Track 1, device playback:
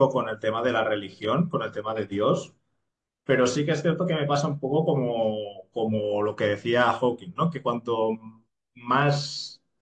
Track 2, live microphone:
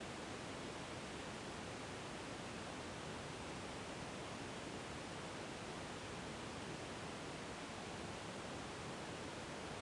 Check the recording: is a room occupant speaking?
No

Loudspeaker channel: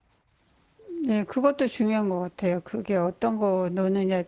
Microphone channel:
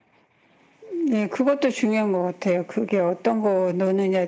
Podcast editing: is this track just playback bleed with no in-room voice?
Yes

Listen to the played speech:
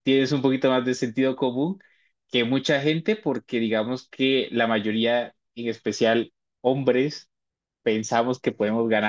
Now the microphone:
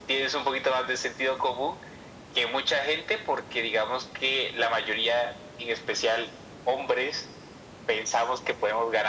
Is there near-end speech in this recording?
No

